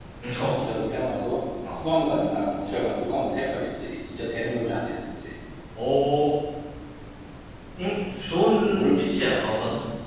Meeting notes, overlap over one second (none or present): none